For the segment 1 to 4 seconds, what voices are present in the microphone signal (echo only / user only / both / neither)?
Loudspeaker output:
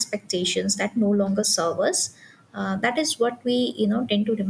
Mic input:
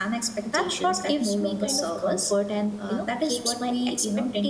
both